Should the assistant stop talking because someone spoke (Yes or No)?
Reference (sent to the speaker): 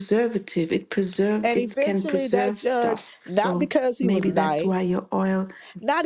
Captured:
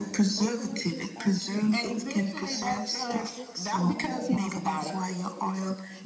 Yes